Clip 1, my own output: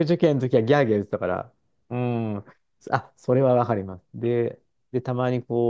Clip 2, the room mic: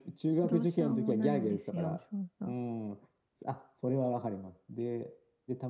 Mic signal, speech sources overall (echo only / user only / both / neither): both